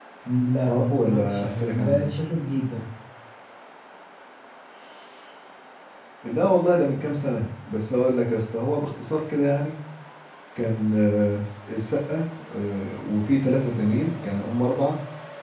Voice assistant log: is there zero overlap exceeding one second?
No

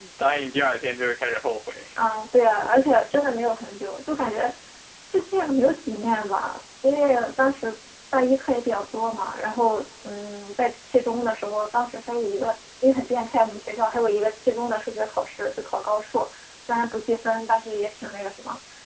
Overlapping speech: No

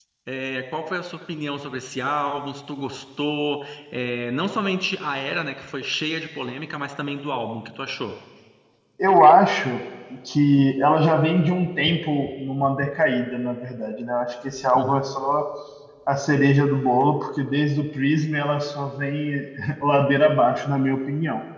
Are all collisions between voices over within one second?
Yes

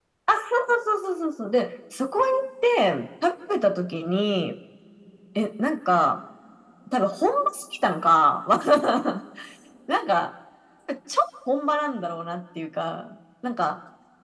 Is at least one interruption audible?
No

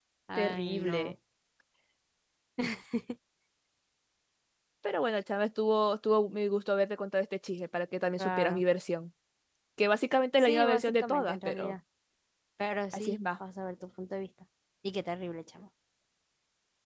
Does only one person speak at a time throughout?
No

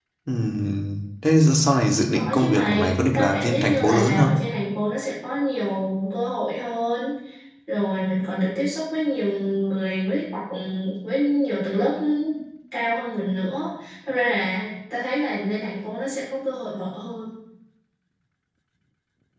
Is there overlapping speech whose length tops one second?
Yes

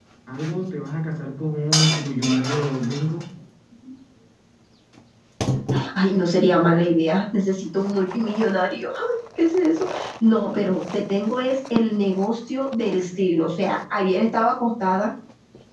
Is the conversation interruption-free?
Yes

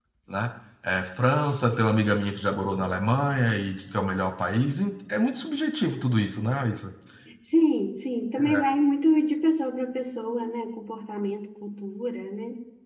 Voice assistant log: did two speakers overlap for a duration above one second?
No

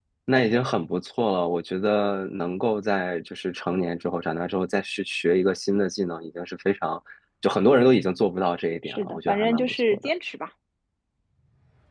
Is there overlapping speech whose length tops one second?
Yes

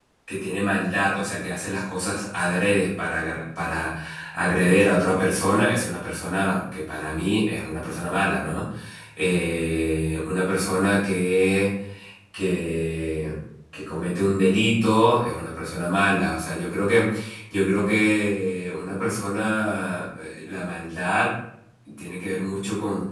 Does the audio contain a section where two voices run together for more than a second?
No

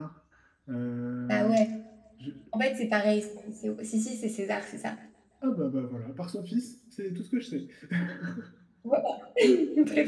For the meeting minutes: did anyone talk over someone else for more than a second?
No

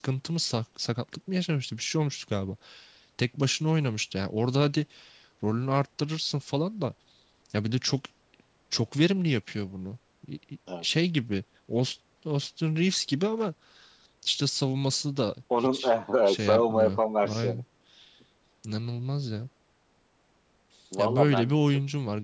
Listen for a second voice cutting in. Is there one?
Yes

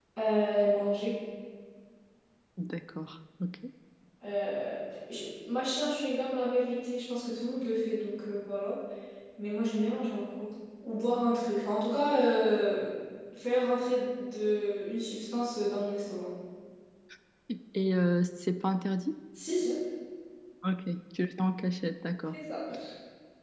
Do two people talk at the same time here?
No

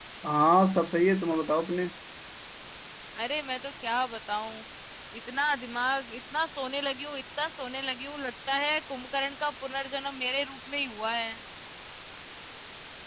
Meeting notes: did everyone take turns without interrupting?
Yes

